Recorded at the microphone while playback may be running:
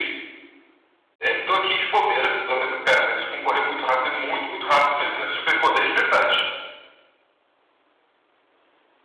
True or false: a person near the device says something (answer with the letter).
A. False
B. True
A